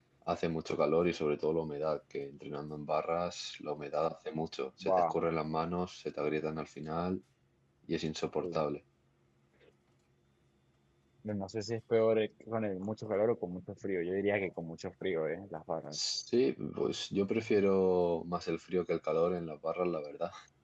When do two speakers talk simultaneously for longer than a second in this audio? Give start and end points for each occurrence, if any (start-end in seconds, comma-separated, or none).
none